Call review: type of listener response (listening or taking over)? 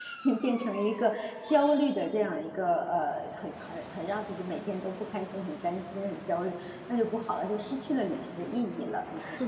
taking over